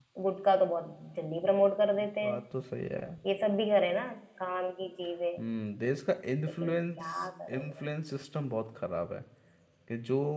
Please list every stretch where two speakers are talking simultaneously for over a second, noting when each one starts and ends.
6.6-7.8

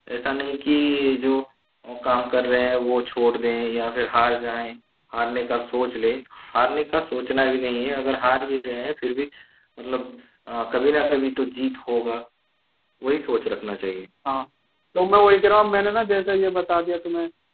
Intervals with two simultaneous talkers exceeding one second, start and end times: none

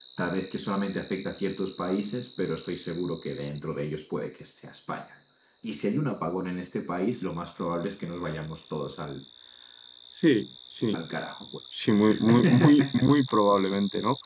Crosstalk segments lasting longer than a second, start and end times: 11.8-13.1

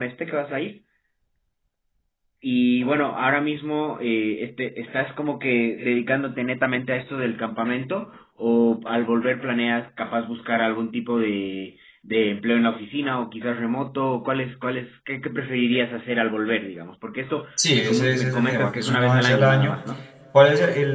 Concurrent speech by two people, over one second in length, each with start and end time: 17.7-19.8

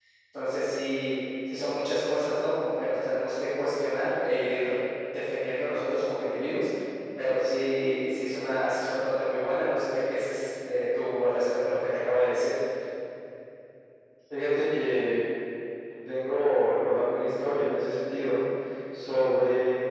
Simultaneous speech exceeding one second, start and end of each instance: none

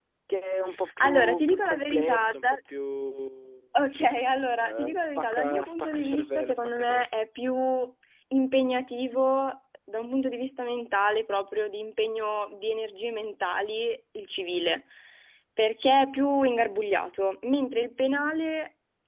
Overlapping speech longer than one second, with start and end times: 1.0-2.4, 4.5-7.2

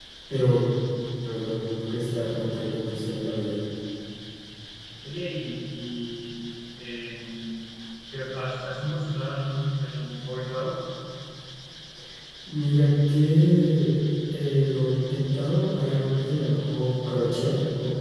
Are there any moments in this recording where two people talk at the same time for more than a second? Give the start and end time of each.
none

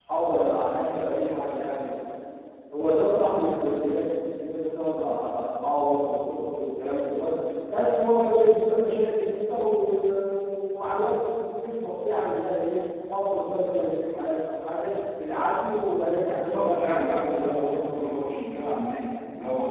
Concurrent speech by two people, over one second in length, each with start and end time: 16.3-18.2

